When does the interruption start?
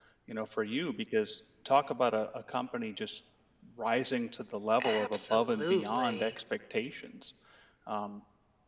4.8 s

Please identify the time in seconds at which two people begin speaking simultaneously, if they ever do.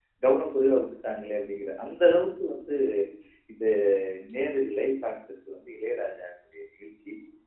none

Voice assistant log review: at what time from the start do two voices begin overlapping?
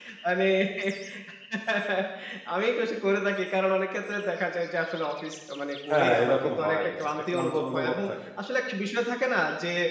5.9 s

